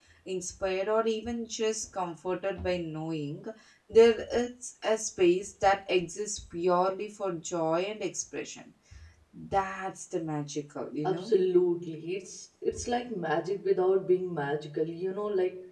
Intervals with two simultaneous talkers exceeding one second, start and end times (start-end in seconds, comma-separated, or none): none